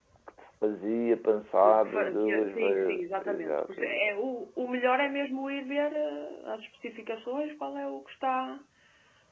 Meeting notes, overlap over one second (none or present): present